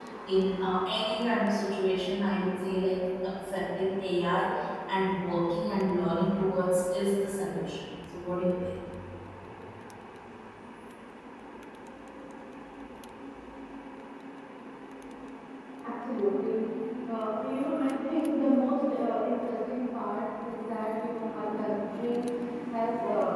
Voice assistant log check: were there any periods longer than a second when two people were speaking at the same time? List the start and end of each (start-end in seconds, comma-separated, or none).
none